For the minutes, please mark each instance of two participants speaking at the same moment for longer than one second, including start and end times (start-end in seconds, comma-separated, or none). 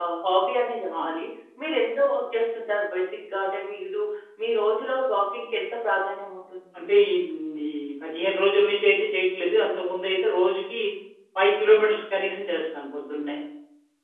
none